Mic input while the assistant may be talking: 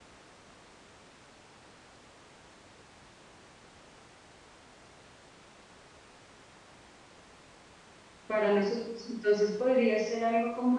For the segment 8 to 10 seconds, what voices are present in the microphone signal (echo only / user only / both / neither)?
user only